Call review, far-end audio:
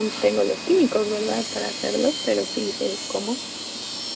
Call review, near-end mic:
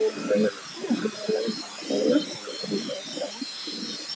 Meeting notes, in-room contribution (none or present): none